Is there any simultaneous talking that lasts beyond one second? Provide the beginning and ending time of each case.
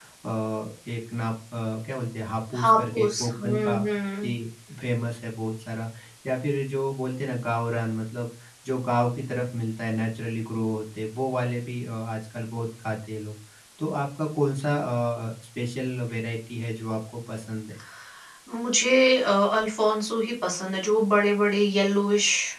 2.6-3.8

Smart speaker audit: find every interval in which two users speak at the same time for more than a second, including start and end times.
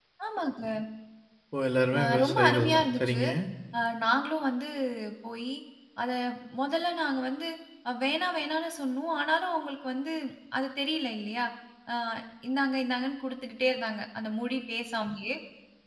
2.0-3.2

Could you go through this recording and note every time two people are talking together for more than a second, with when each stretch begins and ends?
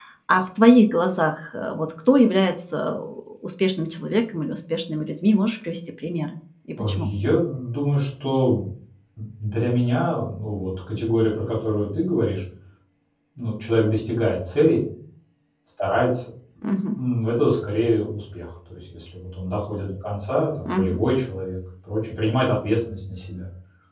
none

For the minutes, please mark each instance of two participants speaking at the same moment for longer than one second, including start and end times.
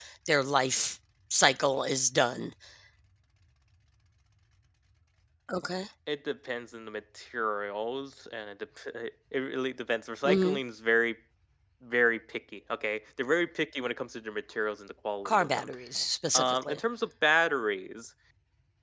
none

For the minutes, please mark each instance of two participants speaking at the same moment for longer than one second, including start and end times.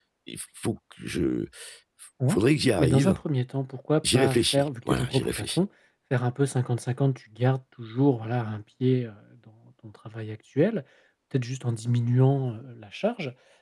4.1-5.6

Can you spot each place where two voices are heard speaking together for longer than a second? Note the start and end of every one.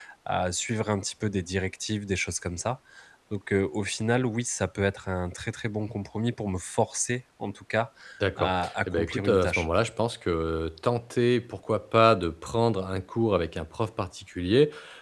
8.4-9.7

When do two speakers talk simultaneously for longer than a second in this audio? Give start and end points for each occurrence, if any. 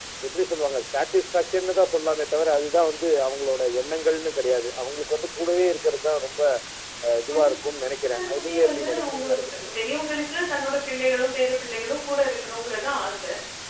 8.1-9.4

